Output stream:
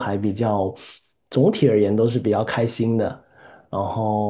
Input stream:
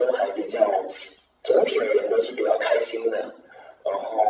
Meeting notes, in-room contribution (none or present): none